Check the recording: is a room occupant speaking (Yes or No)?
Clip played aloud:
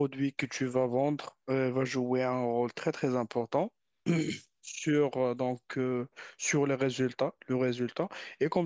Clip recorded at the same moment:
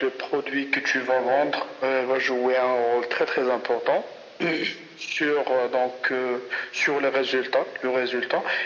No